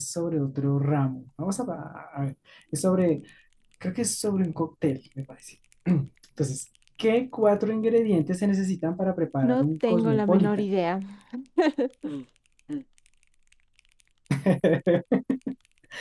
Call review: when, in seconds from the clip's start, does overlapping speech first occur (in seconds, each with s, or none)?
9.4 s